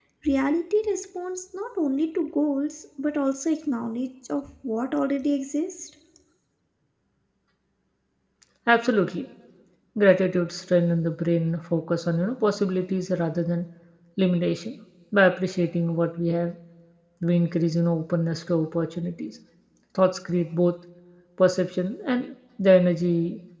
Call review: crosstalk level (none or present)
none